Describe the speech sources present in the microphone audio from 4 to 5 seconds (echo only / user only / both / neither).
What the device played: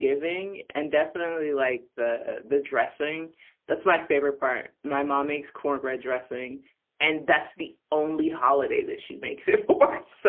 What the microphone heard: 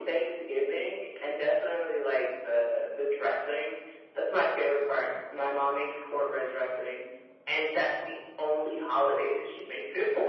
echo only